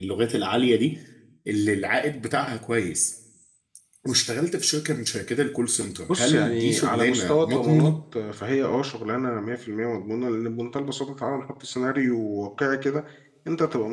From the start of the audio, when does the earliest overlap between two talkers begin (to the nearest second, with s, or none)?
6 s